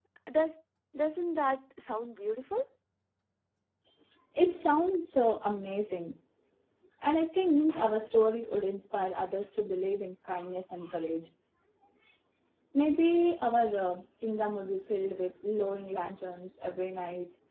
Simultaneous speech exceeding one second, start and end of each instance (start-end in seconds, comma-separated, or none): none